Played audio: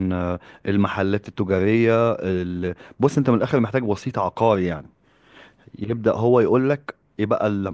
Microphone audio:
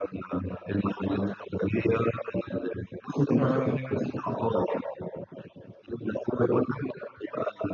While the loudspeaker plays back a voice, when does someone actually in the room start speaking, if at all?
3.4 s

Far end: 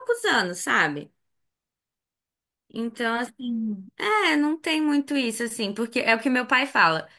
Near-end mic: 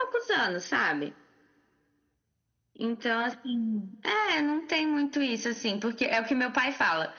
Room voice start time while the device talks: none

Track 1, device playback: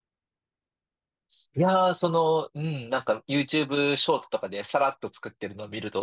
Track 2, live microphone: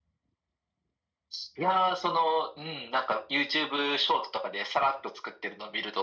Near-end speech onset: none

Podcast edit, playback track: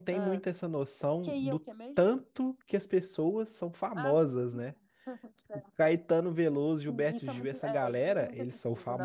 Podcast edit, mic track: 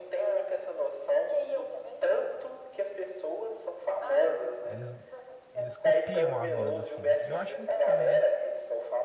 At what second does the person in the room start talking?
4.6 s

